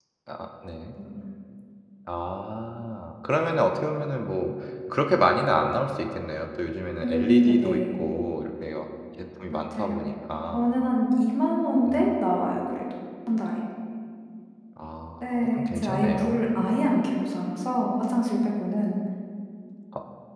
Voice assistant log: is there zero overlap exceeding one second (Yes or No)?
No